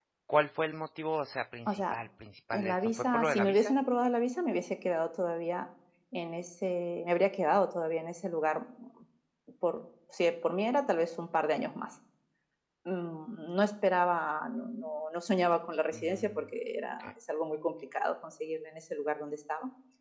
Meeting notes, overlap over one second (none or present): present